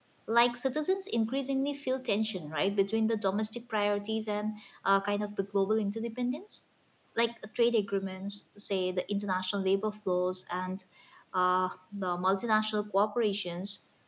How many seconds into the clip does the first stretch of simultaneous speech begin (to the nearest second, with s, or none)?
none